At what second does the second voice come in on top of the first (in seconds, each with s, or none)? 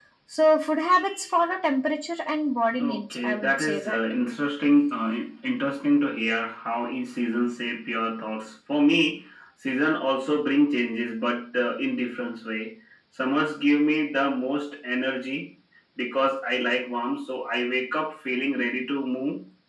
2.8 s